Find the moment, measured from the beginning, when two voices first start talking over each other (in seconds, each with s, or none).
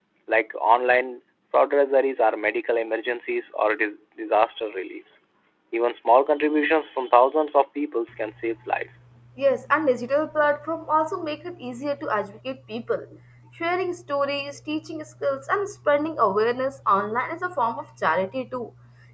none